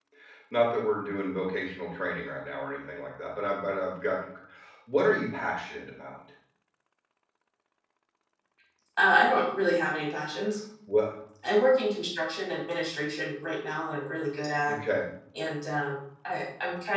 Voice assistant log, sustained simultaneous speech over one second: none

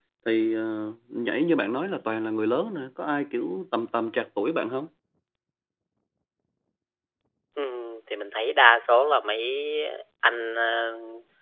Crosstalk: none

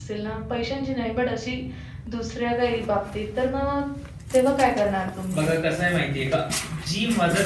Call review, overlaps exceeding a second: none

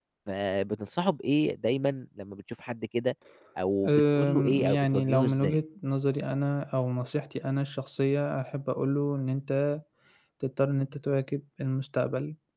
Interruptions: present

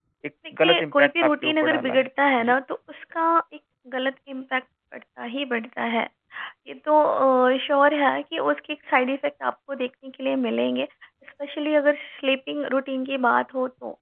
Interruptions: present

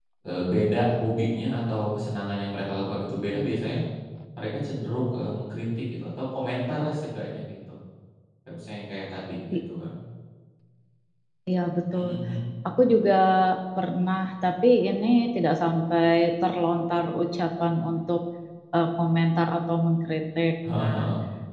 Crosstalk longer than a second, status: none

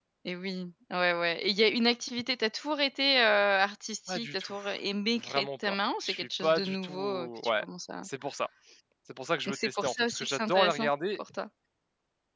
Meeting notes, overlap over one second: present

